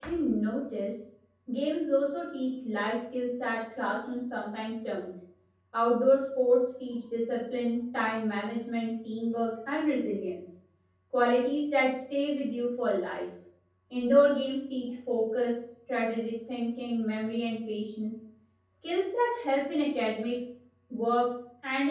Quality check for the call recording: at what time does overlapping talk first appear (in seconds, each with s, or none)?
none